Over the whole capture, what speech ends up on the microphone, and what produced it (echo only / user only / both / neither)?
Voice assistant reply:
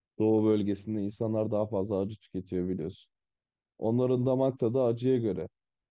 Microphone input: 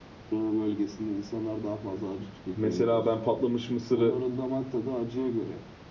both